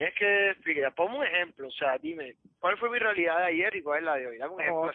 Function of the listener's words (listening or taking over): taking over